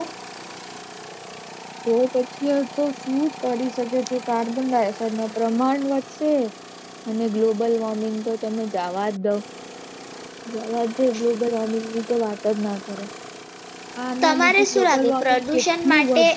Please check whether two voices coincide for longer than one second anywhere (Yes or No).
Yes